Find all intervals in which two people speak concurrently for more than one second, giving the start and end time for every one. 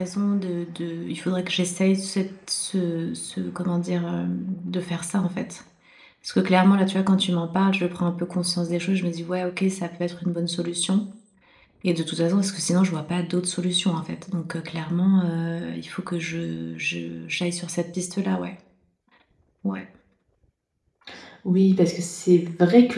none

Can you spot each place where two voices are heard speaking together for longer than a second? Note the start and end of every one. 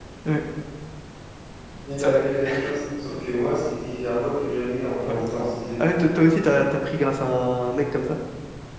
none

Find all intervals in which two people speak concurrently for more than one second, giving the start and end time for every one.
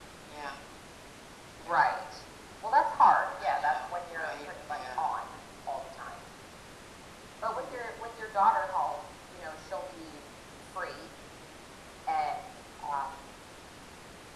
3.4-5.1

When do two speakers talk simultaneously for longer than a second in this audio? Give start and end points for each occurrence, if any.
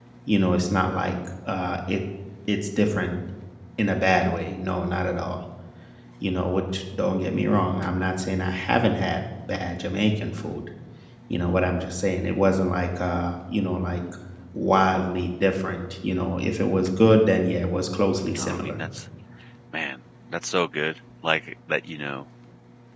none

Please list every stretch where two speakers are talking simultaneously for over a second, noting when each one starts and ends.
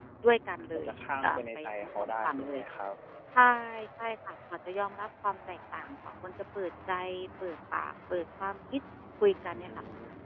1.2-2.6

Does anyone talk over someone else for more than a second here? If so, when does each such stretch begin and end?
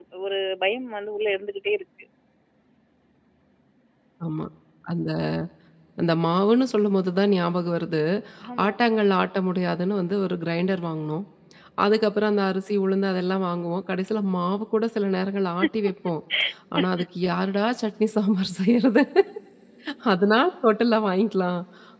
none

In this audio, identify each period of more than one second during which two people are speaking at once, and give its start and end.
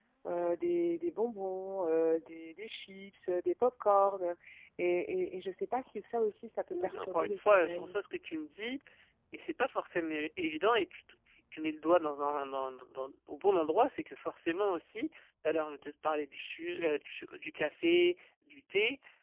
6.7-7.9

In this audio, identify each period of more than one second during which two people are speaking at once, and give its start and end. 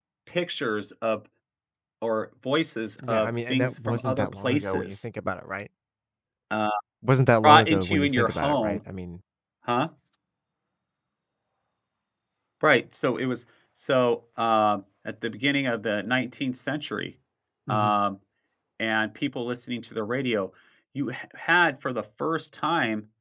3.1-5.0, 7.4-8.8

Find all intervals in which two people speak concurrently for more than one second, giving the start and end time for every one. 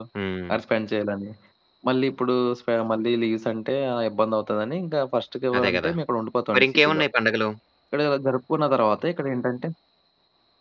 none

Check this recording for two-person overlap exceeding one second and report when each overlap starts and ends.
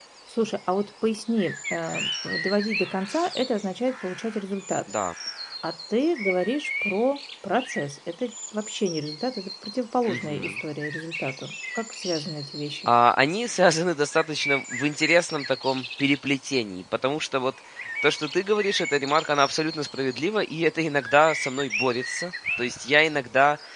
none

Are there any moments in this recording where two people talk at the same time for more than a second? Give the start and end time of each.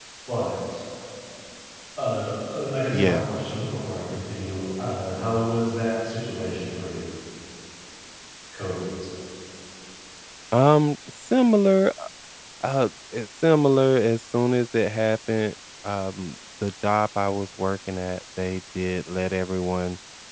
none

